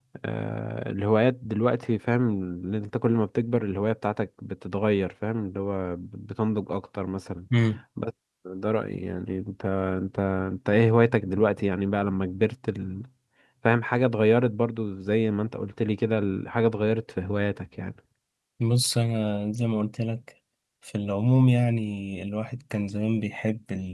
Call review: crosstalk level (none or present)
none